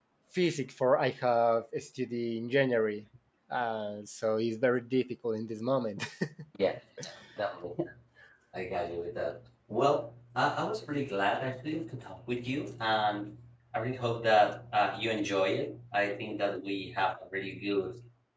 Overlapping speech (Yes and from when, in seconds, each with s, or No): No